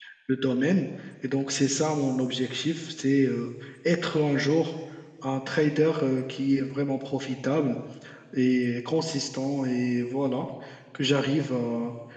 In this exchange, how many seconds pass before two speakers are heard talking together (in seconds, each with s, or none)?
none